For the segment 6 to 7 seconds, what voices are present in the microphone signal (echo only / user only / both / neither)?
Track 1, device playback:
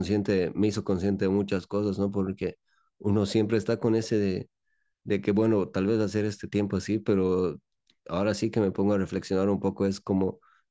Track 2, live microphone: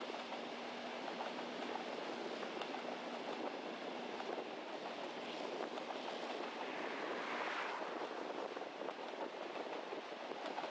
neither